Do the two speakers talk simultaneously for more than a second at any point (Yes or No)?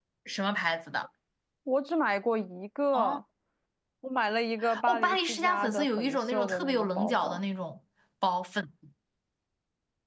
Yes